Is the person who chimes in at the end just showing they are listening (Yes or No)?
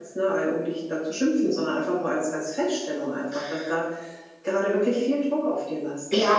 No